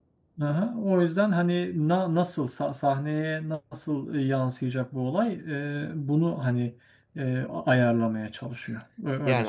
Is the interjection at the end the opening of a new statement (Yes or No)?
Yes